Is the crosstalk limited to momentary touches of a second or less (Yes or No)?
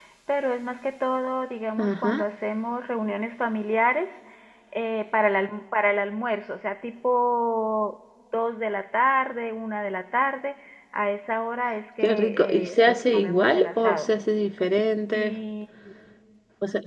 No